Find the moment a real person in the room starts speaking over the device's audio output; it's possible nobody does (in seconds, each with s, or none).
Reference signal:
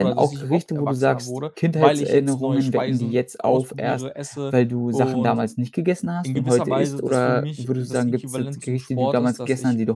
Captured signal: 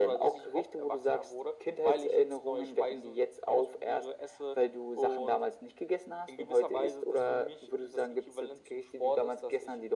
none